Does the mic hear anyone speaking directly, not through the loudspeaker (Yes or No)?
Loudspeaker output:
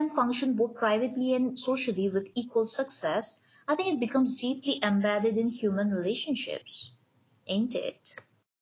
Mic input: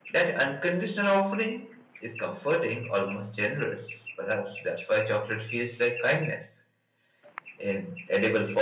Yes